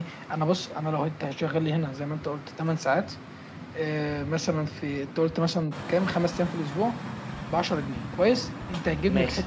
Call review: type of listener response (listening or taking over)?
listening